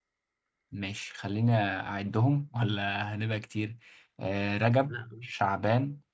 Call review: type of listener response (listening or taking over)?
listening